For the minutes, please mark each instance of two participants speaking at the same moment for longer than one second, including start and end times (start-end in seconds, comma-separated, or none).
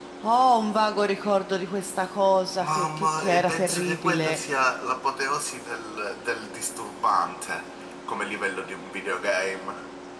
2.6-4.4